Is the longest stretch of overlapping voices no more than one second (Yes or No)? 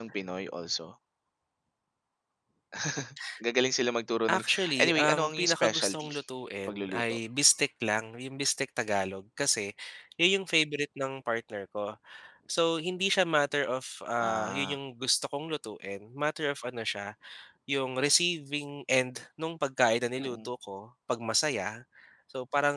No